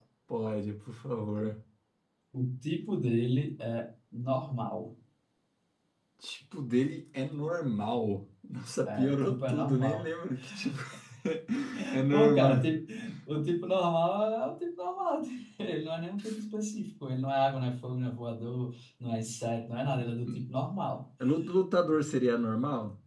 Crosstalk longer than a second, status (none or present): present